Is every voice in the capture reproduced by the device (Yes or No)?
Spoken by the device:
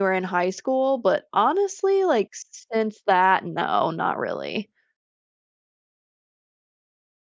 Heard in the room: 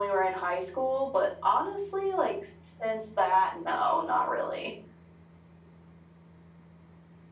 Yes